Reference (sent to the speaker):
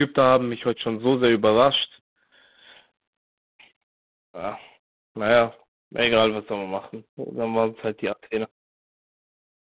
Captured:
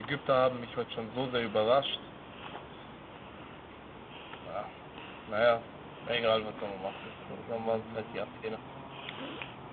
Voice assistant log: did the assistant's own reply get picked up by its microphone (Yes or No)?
Yes